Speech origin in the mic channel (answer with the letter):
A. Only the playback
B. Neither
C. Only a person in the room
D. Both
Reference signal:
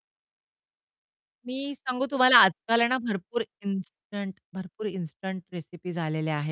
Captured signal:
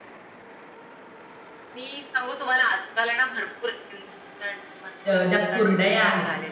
D